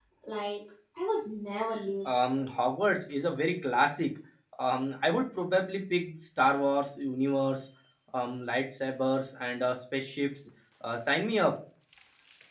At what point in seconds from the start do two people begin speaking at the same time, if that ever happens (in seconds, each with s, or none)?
none